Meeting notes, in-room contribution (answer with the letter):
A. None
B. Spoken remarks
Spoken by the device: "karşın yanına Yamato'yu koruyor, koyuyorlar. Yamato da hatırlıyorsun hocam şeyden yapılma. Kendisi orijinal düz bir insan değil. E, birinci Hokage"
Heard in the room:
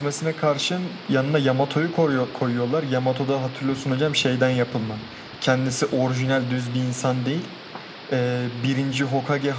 A